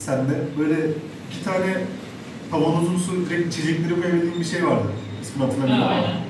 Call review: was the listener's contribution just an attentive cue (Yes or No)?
No